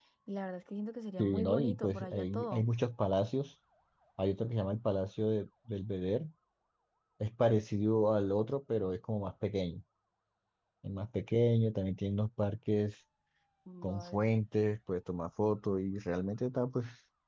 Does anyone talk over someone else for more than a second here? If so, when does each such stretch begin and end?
1.2-2.6

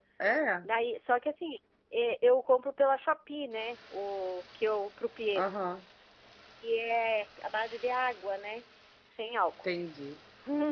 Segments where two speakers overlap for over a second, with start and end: none

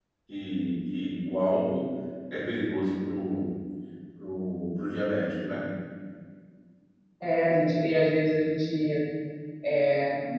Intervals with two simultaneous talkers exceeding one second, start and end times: none

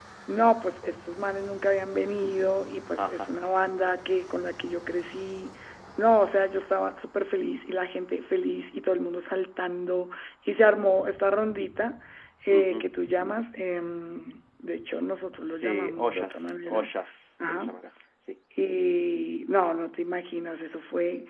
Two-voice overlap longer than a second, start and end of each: 15.6-16.9

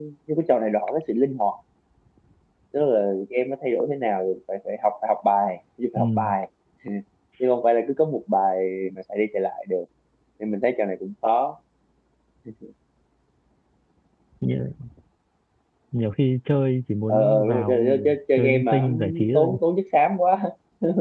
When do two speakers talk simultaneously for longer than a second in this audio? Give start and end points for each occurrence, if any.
17.1-19.6

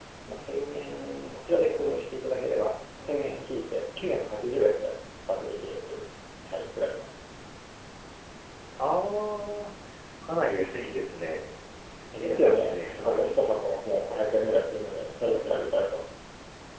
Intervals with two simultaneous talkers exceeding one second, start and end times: 12.1-13.8

